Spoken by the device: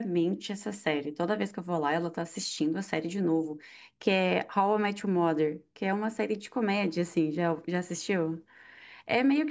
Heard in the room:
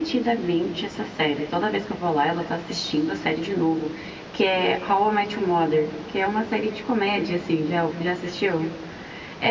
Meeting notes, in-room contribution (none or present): none